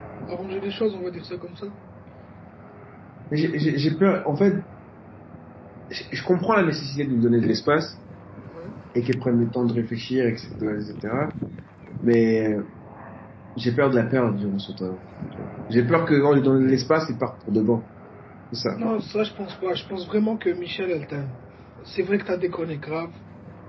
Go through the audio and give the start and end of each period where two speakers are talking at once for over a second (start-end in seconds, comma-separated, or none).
none